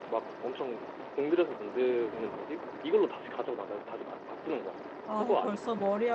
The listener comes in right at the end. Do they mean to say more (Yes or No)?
Yes